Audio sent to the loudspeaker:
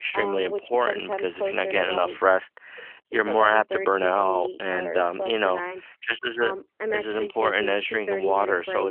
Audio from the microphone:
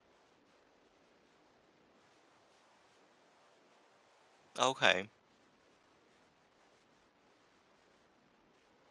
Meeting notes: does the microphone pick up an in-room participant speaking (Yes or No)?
Yes